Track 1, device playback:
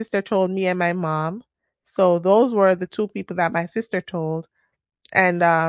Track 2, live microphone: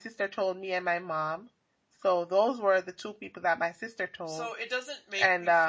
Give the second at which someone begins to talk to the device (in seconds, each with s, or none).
4.2 s